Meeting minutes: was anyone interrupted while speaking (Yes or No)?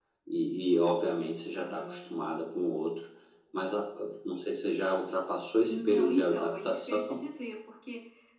Yes